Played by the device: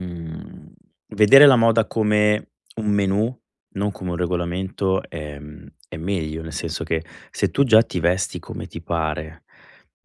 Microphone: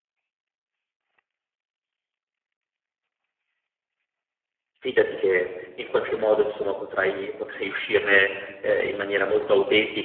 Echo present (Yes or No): No